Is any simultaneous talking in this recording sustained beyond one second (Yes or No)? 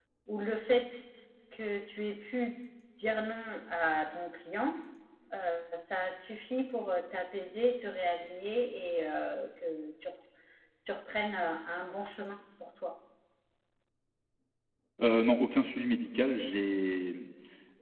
No